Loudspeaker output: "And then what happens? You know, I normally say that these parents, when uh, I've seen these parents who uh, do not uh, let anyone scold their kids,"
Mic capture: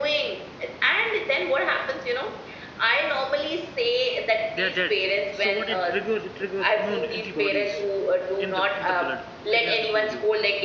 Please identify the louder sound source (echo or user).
echo